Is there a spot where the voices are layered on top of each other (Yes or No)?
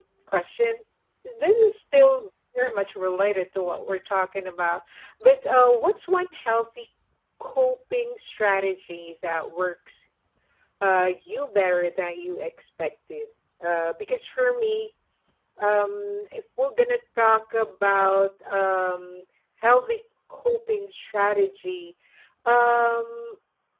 No